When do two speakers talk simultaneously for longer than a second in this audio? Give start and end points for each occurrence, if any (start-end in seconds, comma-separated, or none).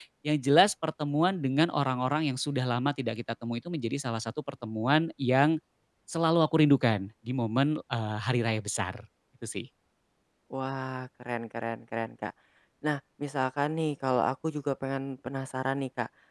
none